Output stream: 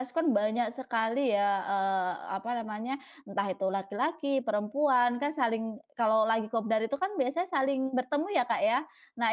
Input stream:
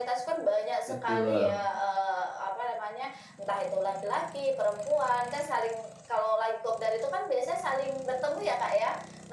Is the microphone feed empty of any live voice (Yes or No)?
No